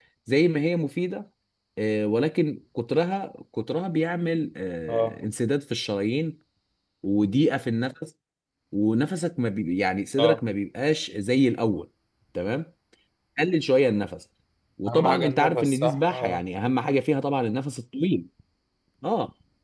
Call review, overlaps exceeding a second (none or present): present